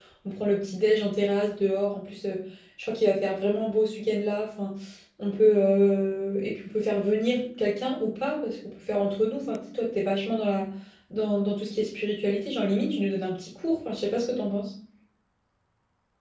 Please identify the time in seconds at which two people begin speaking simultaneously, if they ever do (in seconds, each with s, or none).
none